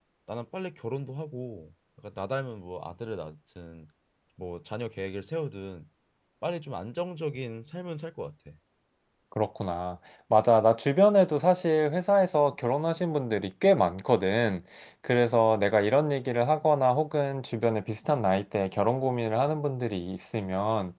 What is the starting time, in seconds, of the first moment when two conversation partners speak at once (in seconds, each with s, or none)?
none